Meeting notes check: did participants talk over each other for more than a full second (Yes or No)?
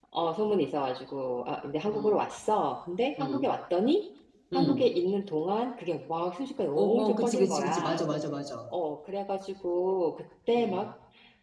Yes